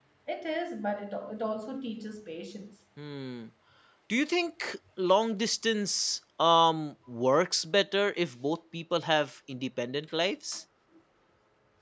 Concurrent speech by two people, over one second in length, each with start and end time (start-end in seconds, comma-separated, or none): none